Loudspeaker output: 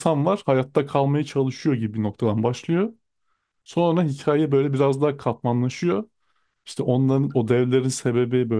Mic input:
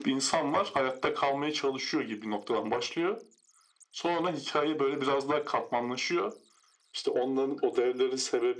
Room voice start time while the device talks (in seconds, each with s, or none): none